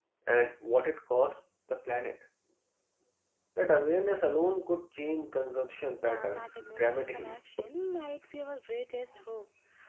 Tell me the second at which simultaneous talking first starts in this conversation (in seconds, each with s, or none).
6.0 s